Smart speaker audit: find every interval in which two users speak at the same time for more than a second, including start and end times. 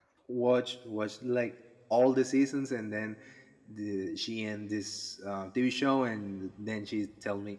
none

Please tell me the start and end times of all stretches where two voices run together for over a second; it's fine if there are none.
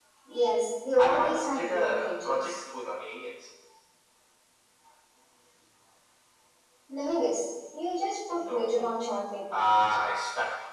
1.0-2.4

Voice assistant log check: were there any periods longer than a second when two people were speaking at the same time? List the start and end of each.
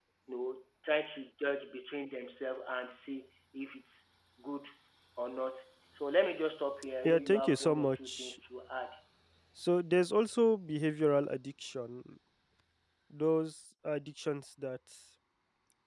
7.0-8.4

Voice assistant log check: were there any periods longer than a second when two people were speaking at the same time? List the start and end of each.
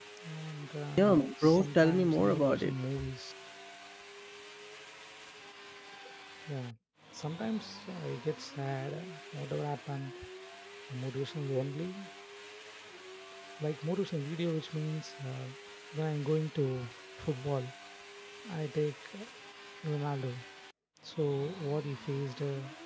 1.0-2.7

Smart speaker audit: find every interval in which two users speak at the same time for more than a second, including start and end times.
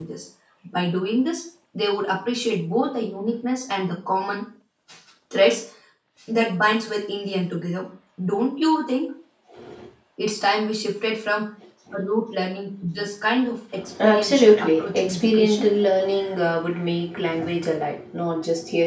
14.0-15.7

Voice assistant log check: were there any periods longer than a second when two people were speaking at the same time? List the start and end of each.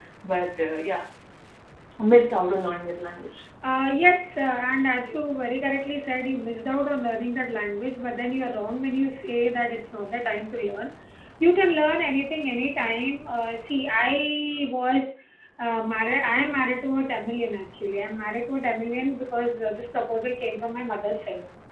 none

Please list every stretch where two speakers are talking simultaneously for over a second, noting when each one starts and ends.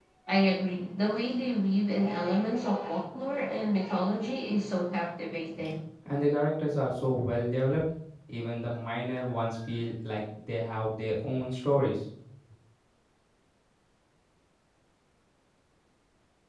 none

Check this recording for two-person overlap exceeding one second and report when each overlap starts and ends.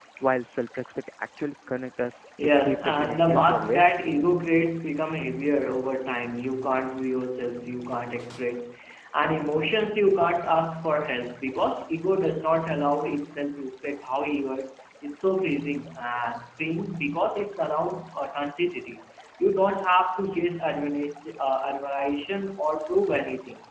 2.4-3.9

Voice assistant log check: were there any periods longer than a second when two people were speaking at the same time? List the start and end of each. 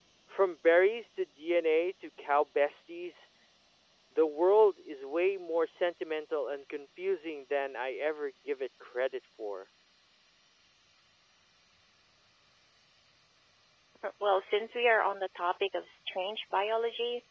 none

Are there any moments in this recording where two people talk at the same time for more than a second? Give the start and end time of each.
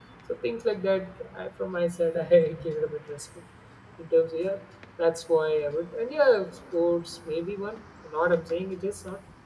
none

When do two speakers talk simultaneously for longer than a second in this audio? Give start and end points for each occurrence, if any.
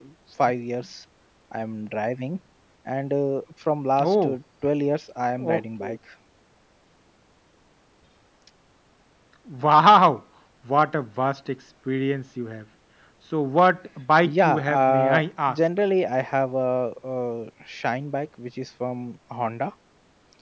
14.2-15.6

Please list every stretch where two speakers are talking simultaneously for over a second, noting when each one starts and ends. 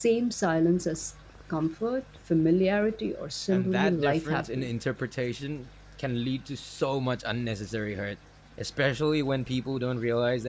3.5-4.7

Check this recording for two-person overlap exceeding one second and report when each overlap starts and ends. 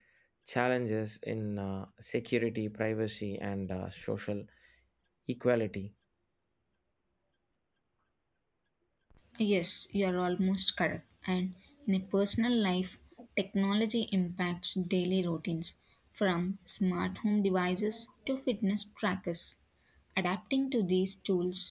none

